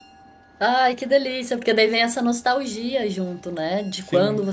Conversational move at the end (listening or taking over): listening